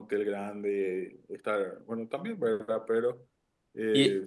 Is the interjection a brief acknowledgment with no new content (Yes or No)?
Yes